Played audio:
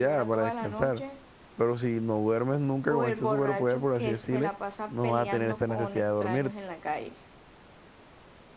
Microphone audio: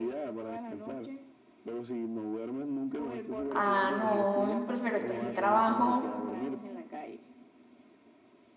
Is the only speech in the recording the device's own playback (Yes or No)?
No